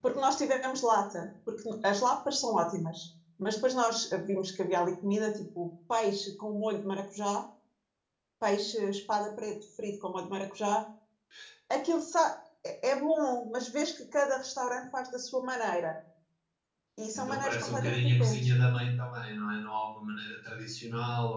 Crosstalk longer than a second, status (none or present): present